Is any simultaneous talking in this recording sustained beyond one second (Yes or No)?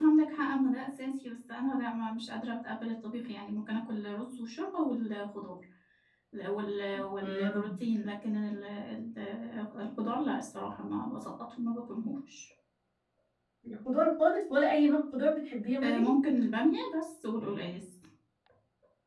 No